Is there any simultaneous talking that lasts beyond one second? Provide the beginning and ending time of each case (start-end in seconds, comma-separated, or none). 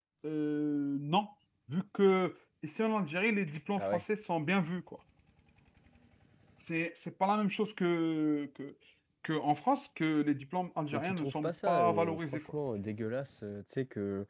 10.9-12.5